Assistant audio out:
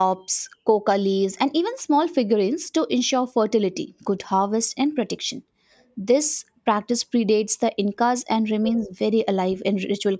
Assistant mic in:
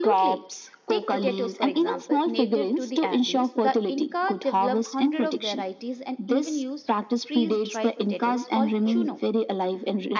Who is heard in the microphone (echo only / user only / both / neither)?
both